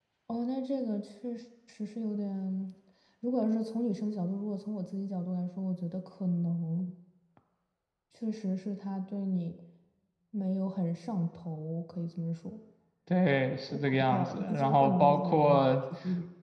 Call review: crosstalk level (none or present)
present